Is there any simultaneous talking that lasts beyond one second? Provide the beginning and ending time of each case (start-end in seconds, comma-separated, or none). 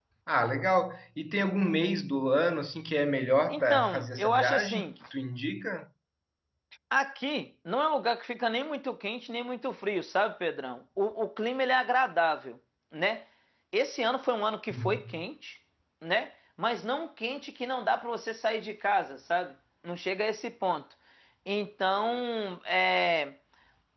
3.5-4.9